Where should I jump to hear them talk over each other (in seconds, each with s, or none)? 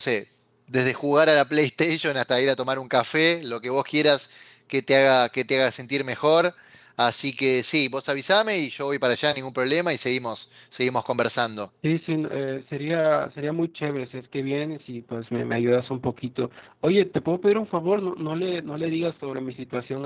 none